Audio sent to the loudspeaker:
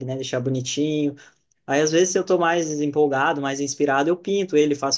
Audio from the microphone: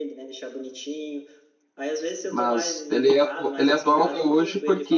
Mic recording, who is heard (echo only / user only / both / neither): both